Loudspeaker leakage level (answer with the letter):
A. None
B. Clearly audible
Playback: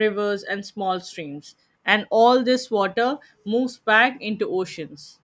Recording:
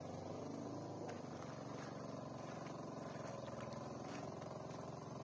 A